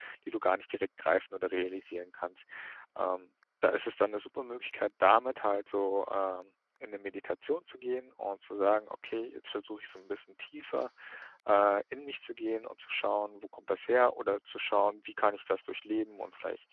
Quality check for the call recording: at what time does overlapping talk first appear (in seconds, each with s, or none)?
none